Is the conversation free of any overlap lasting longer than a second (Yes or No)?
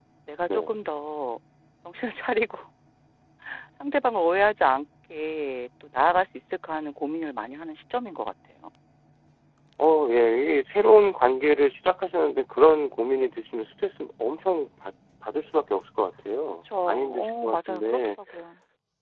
No